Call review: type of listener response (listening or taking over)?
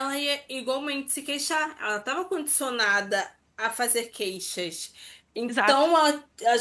listening